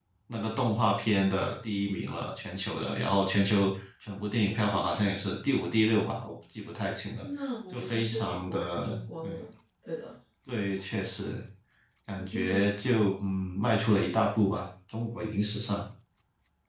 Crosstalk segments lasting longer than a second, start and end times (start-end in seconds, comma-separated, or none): 7.7-9.4